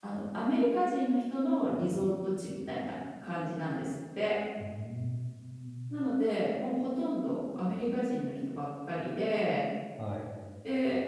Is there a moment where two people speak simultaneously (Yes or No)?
No